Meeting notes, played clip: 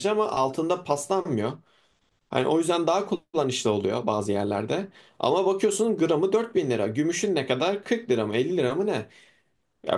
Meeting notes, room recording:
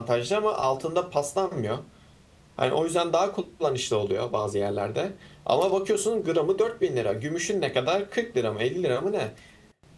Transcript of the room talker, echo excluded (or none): none